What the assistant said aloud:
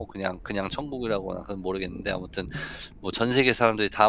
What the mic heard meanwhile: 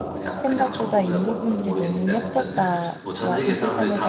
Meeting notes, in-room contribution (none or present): present